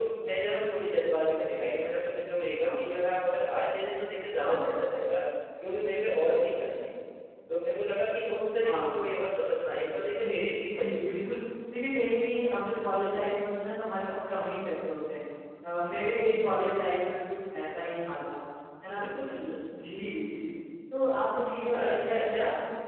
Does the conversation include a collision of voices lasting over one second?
Yes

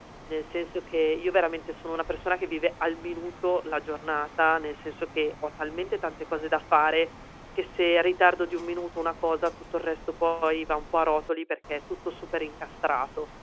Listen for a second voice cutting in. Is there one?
No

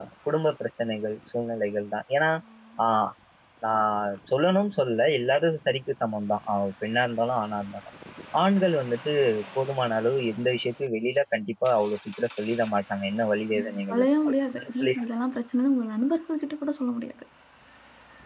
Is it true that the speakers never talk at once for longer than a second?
No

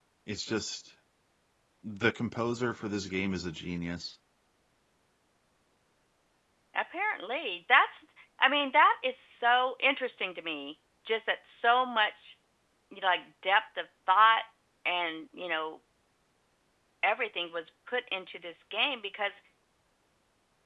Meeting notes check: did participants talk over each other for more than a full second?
No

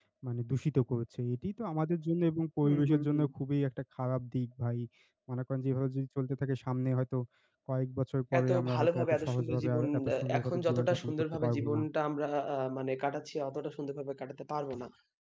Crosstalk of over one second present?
Yes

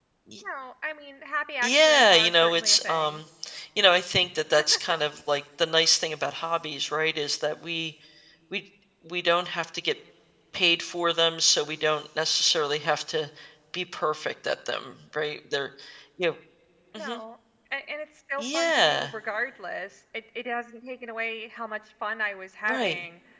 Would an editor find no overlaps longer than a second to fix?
No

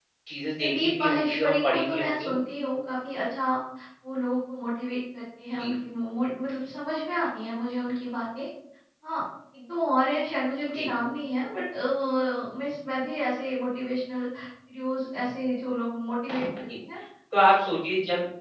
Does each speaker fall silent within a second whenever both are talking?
No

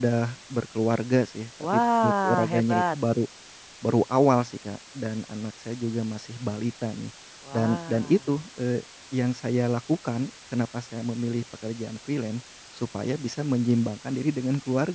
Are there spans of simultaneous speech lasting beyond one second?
Yes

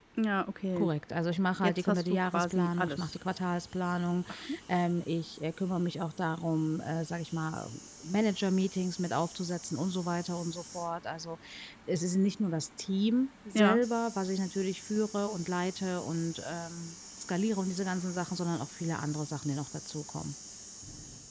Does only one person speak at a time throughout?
No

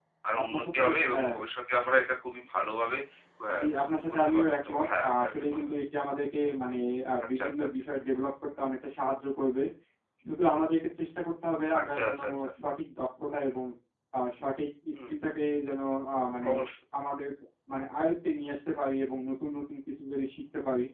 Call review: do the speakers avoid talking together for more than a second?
No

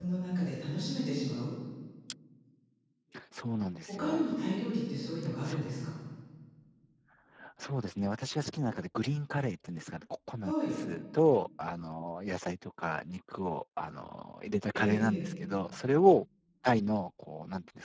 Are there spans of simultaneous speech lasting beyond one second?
No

